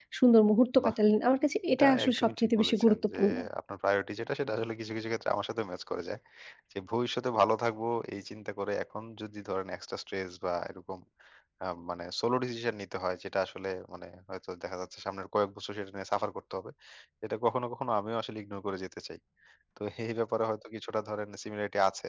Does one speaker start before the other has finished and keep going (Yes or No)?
Yes